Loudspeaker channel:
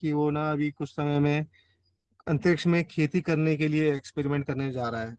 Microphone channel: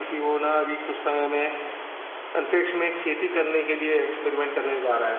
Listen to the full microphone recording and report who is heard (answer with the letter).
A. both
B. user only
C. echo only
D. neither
C